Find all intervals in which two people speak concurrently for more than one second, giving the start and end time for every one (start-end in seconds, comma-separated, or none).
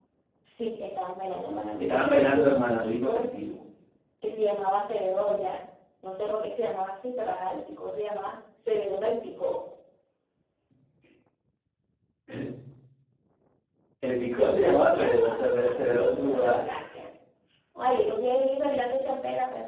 1.8-3.2, 14.3-16.7